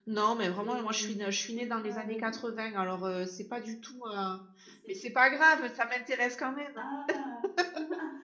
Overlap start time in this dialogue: 0.6 s

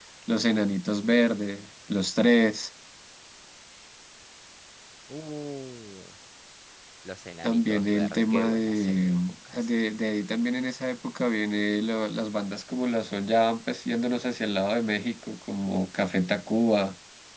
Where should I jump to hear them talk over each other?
7.4 s

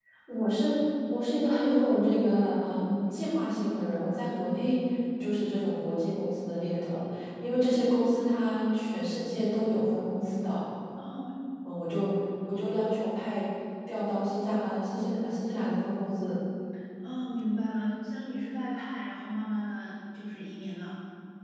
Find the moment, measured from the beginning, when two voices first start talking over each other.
none

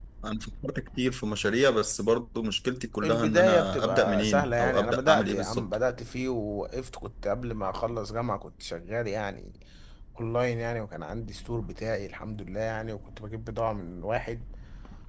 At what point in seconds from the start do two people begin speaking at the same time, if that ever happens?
3.0 s

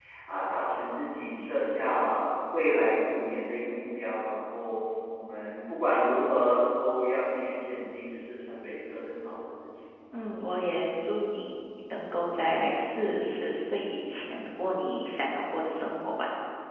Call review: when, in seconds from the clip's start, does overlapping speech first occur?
none

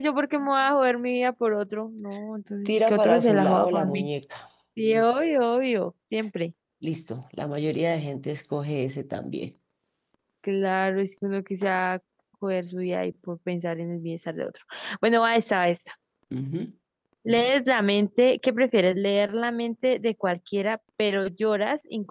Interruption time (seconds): 2.6 s

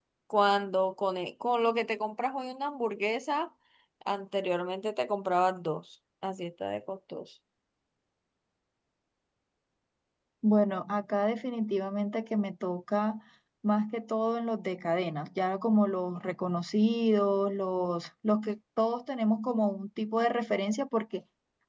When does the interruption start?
none

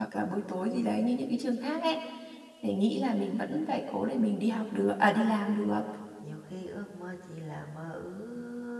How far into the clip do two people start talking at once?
none

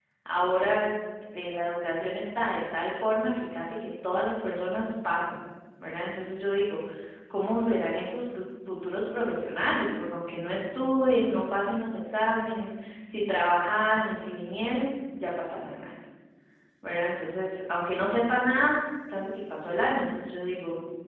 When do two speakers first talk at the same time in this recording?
none

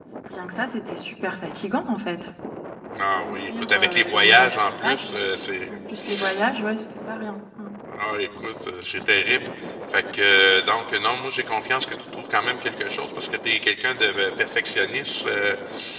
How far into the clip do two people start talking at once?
3.2 s

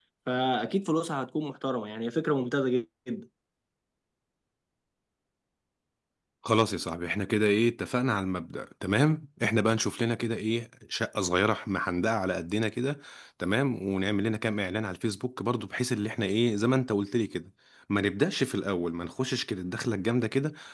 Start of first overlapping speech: none

